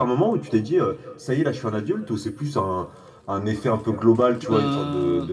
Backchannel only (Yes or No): Yes